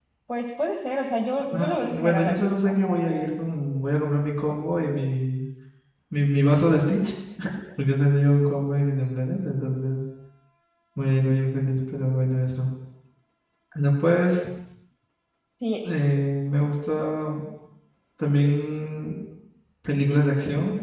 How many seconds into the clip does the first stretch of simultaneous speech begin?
2 s

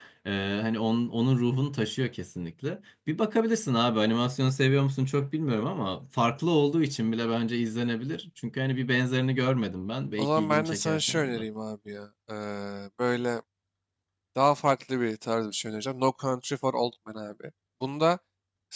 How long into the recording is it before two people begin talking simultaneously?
10 s

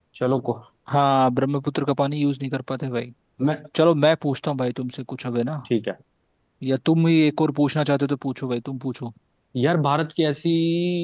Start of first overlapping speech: none

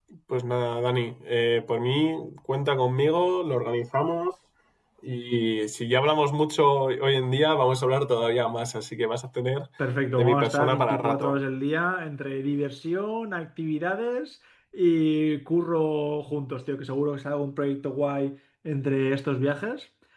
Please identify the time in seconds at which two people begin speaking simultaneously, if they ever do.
10 s

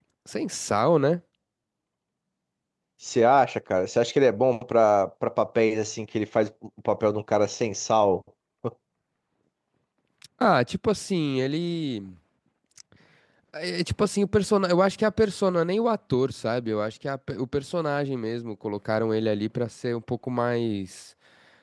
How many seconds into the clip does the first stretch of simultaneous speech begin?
none

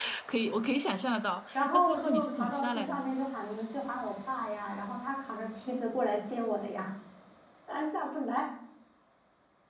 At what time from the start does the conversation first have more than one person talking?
2 s

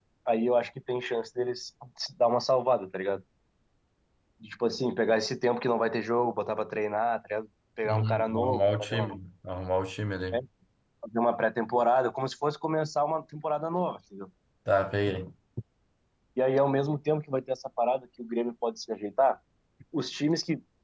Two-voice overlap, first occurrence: 8 s

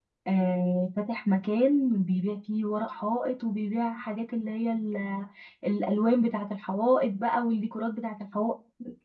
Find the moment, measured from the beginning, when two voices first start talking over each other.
none

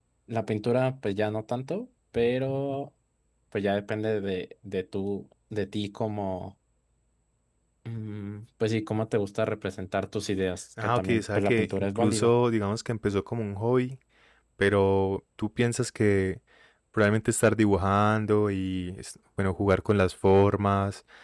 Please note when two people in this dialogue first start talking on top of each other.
11 s

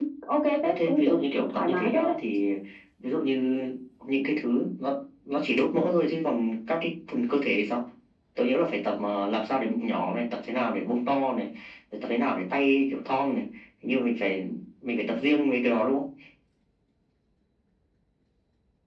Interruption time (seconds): 1 s

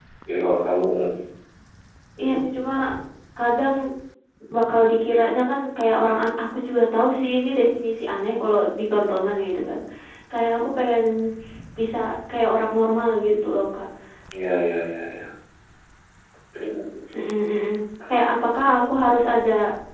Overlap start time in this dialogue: none

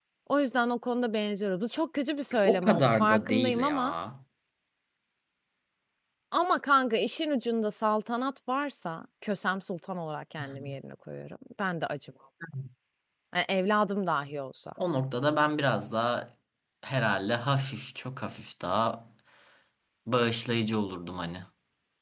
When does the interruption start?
2 s

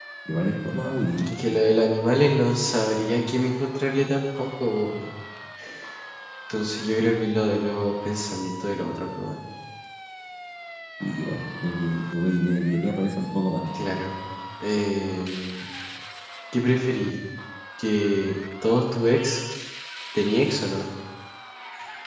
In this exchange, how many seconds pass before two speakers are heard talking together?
none

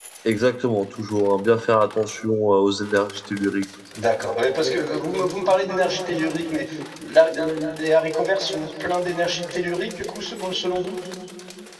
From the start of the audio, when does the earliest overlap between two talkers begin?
none

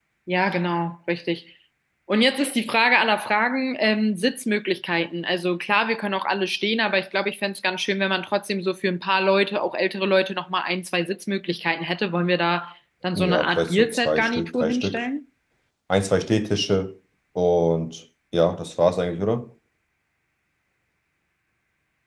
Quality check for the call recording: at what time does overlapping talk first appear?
13 s

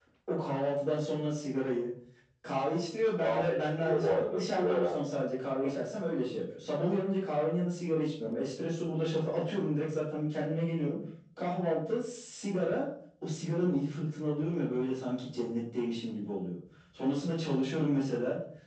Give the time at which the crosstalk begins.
3 s

